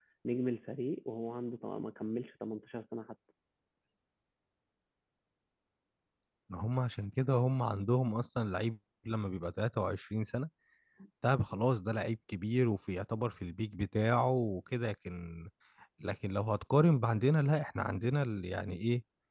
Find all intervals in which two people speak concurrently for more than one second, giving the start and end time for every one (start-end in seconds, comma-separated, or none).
none